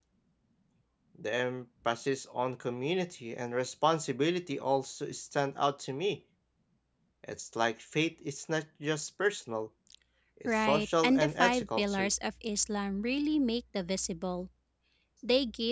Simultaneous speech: Yes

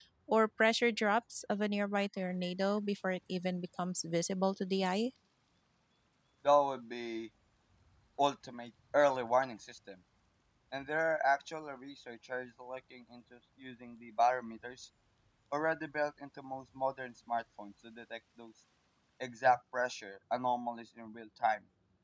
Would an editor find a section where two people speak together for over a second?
No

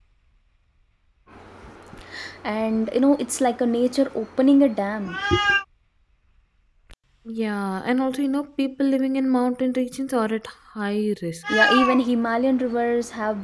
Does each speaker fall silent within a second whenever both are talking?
Yes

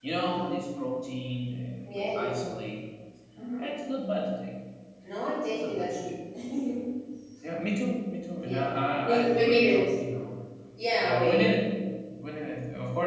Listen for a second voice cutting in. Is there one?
Yes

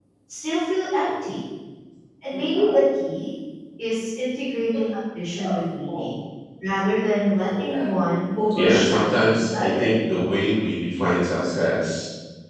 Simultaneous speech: Yes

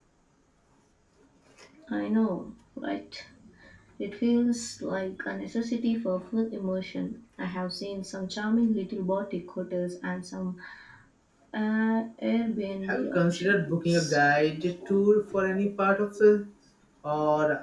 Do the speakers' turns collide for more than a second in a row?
Yes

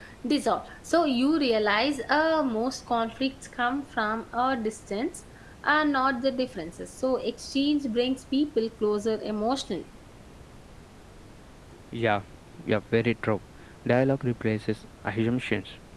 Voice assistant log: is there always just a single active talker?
Yes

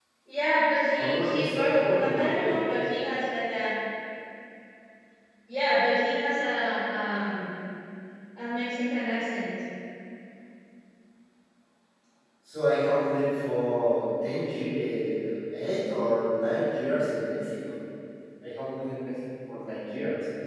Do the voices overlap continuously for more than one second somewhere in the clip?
Yes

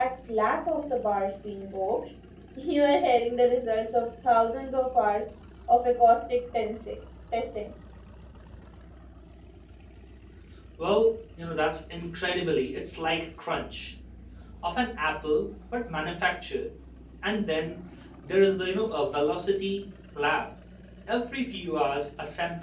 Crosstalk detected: No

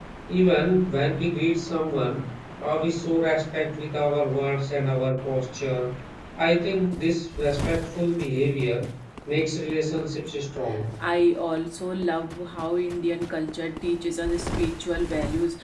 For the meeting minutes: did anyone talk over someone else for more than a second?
No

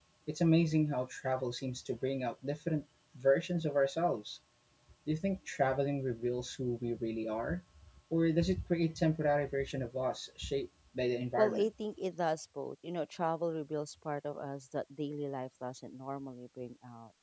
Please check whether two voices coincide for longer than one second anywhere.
No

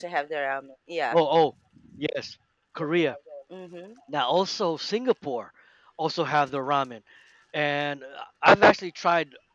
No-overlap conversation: Yes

